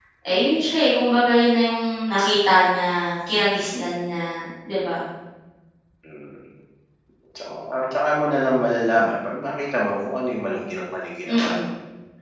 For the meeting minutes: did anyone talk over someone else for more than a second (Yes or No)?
No